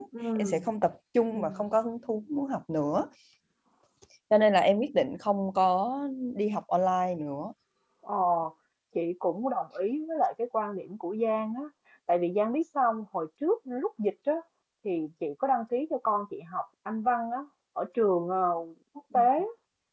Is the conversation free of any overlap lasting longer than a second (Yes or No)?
Yes